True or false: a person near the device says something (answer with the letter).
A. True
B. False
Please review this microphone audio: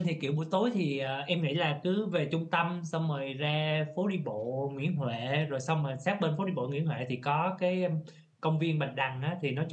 A